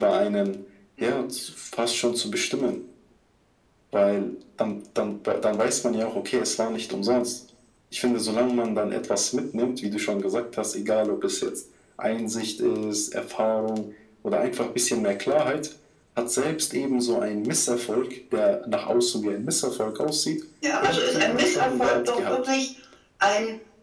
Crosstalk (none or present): present